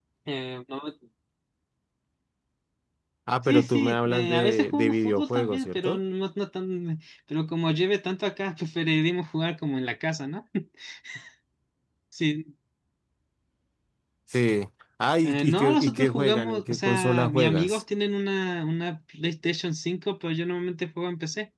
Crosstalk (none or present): present